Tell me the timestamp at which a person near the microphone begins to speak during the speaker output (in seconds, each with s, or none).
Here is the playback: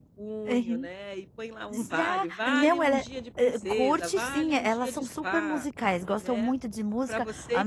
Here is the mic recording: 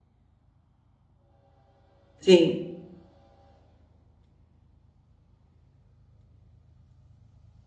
2.2 s